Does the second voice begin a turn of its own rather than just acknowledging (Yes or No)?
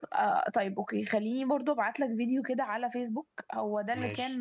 No